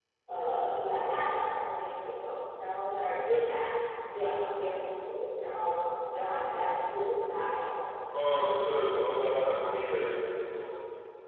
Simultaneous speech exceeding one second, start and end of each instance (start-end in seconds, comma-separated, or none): none